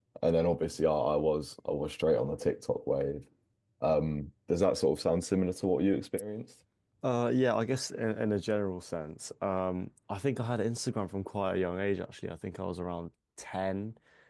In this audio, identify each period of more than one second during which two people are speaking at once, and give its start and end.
none

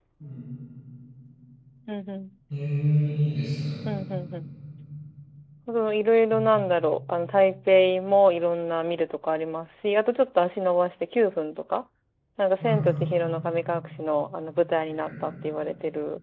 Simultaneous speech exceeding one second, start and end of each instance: none

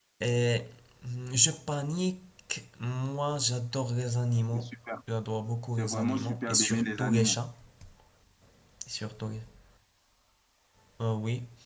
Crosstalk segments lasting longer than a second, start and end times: 5.8-7.4

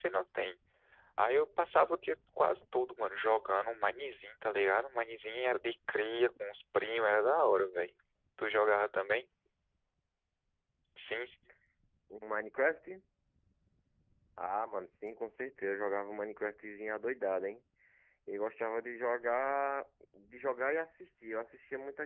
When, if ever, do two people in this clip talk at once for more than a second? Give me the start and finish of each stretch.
none

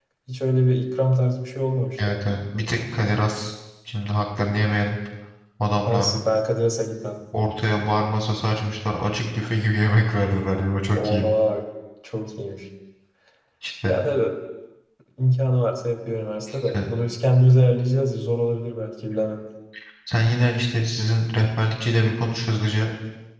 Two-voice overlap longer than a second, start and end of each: none

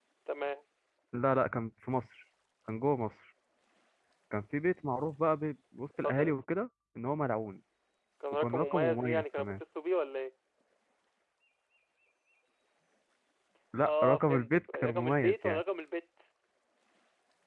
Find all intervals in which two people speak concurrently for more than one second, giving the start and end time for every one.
8.3-9.5, 13.8-15.6

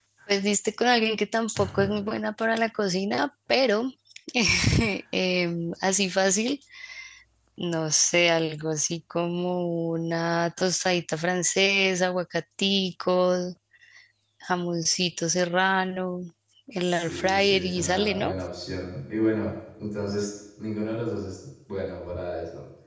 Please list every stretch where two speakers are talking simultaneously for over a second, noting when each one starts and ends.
16.8-18.3

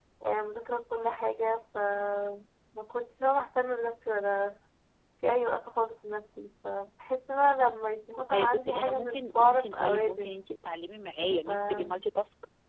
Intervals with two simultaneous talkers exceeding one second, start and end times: 8.3-10.4

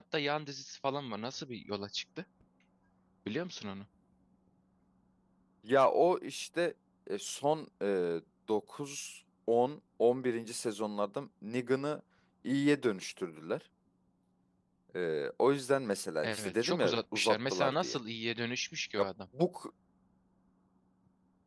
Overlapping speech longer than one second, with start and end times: 16.2-18.0

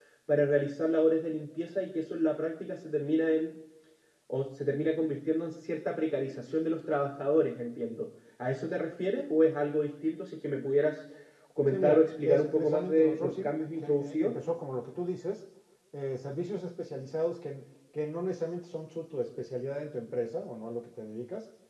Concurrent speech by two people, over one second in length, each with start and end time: 11.7-14.4

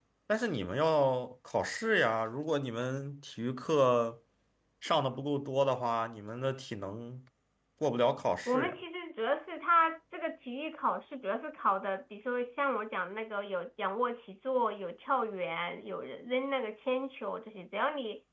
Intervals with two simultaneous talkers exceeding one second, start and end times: none

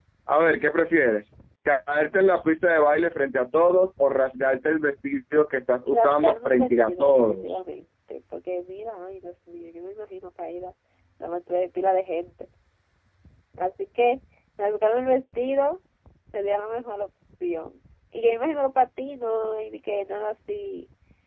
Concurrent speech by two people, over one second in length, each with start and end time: 5.9-7.6

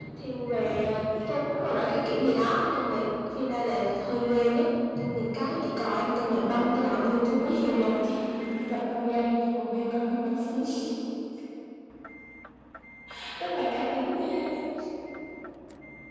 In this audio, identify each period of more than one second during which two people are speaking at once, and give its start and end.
6.3-8.0

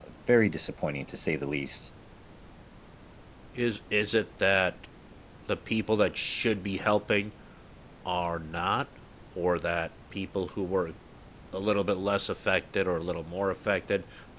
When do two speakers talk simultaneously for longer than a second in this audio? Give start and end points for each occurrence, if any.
none

